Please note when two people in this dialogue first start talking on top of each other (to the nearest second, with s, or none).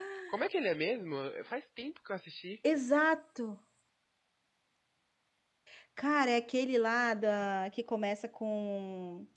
none